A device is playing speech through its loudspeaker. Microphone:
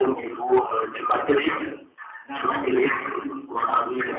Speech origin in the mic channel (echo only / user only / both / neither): both